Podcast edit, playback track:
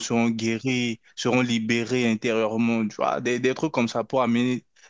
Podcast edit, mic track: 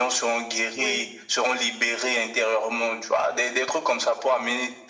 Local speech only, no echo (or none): ouais,